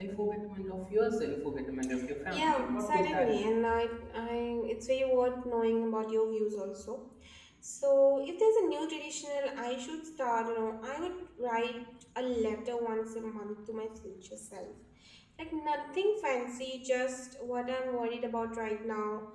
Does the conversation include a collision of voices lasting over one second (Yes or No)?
Yes